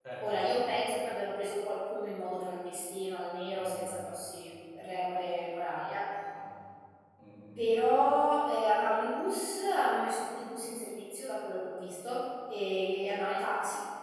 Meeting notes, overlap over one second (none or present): none